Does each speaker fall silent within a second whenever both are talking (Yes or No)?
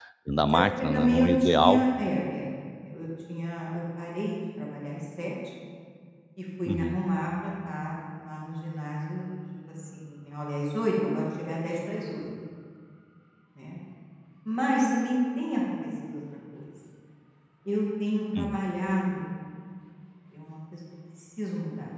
No